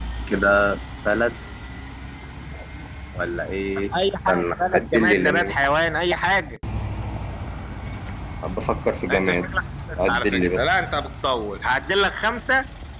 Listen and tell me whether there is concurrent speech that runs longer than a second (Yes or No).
Yes